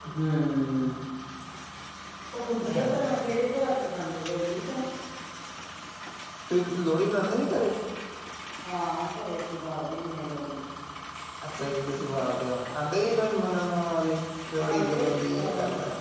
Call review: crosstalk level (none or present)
present